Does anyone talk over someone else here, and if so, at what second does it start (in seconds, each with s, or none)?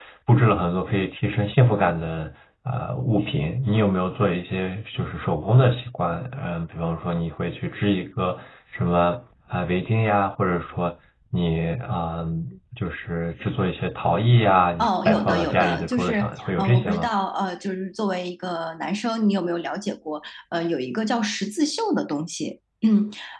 14.8 s